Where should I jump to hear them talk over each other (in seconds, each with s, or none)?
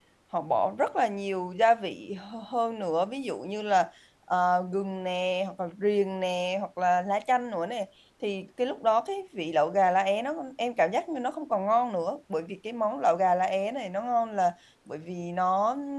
none